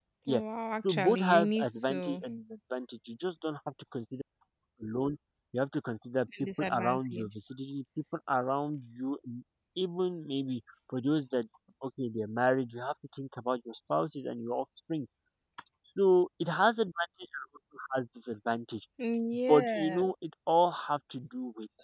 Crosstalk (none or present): present